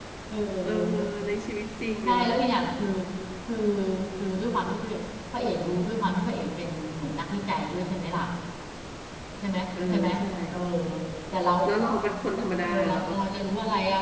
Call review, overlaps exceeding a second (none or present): none